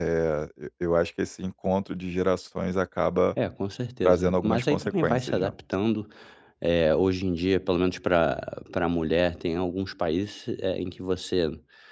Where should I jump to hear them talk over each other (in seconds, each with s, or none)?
4.0 s